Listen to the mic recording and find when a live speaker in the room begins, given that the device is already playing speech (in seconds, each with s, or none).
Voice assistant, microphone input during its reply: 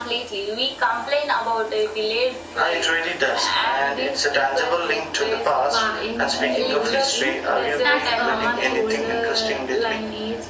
5.7 s